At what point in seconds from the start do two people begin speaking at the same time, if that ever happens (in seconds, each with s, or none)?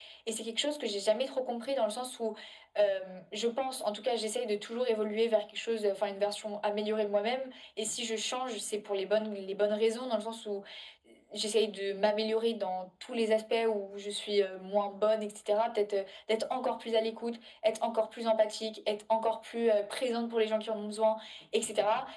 none